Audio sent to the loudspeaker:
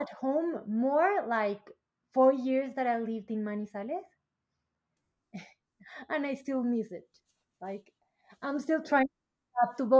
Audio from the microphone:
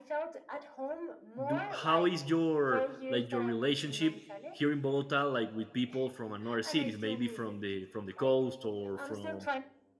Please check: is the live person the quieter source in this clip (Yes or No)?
No